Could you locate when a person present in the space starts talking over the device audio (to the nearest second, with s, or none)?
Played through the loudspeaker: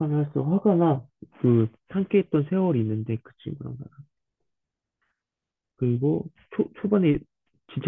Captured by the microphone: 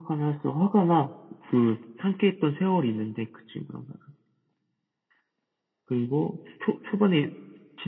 none